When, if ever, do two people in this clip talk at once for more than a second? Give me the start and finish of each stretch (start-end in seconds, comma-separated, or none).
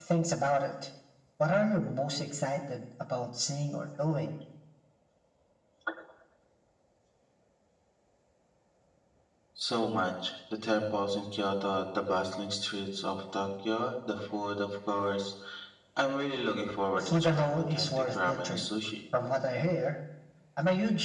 17.0-18.6